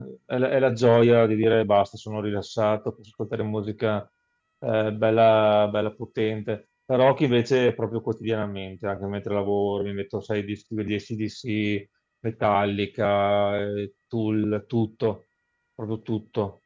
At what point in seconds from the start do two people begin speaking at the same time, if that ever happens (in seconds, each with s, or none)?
none